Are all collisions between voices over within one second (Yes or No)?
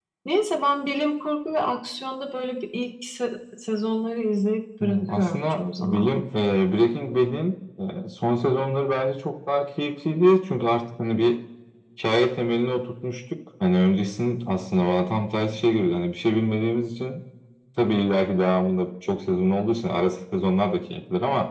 No